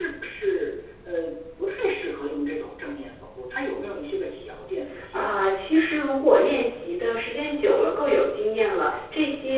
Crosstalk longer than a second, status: none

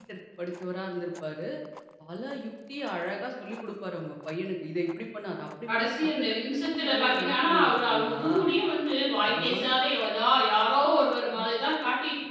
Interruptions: present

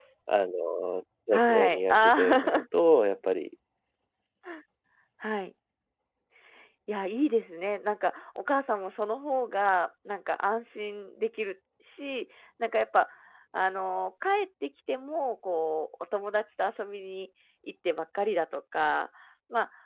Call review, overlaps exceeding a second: present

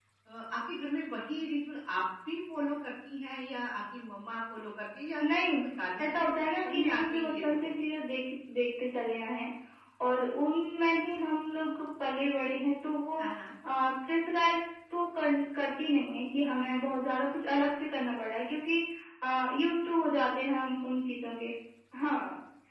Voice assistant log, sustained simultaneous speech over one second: present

